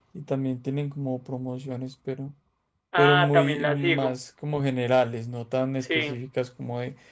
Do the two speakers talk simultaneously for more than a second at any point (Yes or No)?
Yes